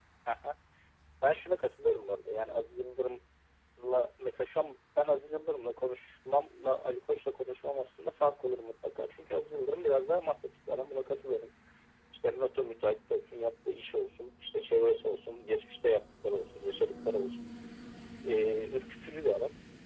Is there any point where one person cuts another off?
No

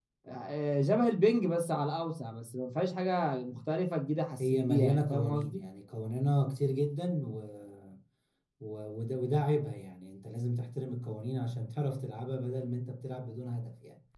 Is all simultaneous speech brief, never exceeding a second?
No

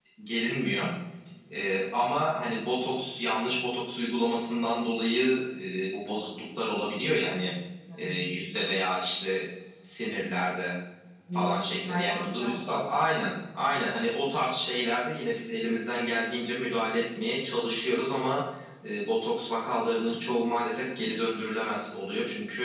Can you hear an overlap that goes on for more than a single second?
Yes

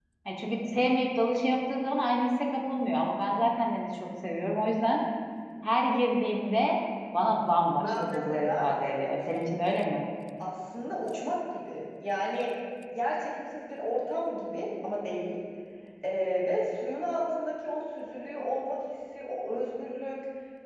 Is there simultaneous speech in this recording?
Yes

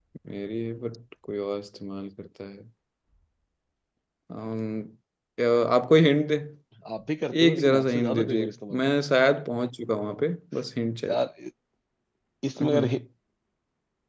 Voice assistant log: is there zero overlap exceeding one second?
No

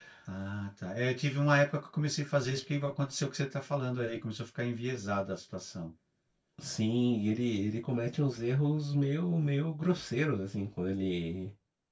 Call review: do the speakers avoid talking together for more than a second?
Yes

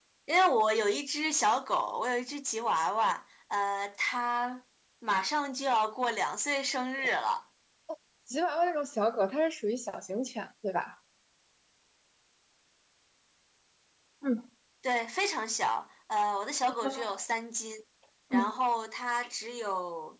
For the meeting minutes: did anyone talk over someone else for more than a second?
No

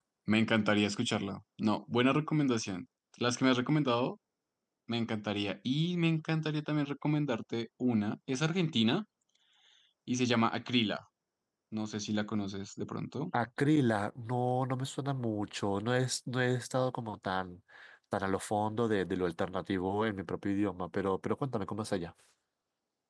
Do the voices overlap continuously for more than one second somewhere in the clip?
No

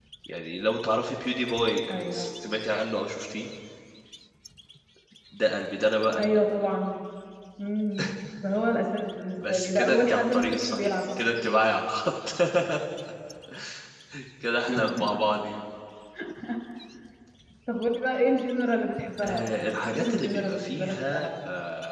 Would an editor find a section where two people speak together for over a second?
Yes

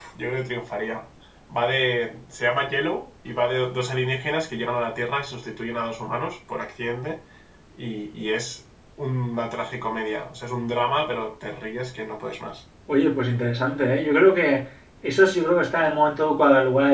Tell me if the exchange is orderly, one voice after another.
Yes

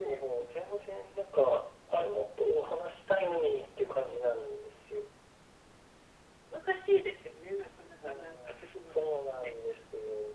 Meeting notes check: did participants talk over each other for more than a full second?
Yes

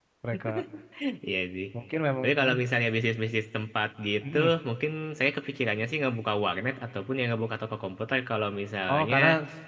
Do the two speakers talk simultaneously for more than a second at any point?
No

